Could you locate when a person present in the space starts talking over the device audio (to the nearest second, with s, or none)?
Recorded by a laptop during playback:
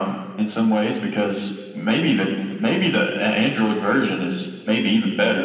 none